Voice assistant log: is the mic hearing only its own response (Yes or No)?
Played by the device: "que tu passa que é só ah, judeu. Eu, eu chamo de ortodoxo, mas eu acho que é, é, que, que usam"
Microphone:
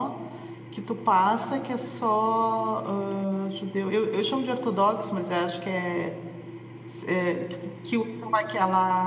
Yes